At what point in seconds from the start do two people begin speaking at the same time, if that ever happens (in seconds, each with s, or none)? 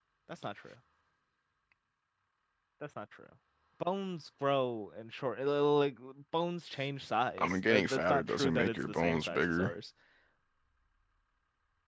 7.4 s